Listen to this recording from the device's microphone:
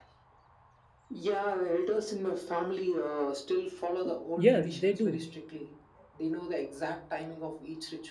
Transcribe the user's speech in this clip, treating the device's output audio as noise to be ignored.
Yes, they do.

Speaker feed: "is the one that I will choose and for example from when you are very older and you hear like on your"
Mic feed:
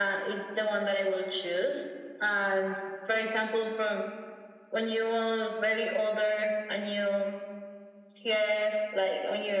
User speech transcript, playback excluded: none

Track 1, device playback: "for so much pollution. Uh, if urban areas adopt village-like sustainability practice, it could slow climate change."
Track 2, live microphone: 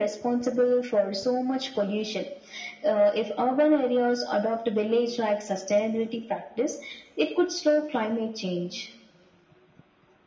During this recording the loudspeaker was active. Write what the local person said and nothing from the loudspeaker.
none

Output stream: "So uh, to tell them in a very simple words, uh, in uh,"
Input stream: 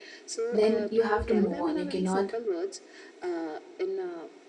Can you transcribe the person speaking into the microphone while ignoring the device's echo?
then you have to move on you cannot

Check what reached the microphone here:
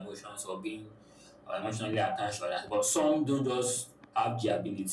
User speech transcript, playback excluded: none

